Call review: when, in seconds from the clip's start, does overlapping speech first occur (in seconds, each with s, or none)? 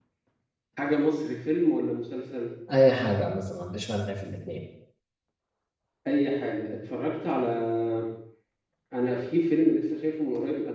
none